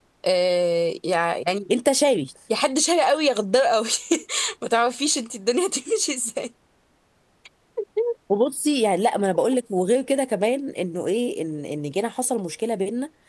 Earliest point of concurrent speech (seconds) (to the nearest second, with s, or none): none